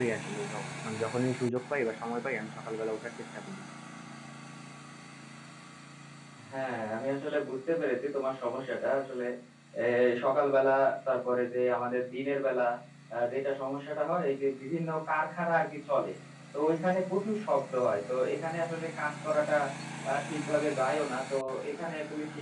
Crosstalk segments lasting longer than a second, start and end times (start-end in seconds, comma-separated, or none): none